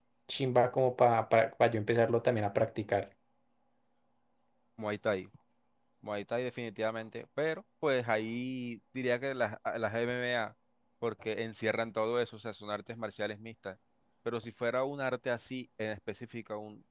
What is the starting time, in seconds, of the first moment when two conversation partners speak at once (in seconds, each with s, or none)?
none